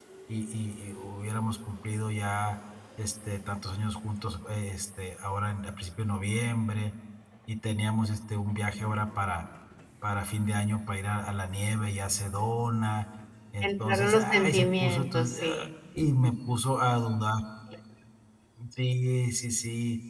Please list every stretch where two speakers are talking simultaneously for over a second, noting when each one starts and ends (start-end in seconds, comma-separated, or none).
13.6-15.7